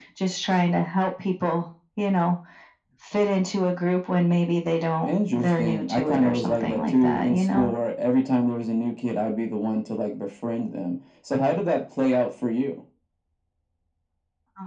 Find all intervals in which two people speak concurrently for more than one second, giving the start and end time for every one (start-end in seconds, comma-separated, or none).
5.1-7.7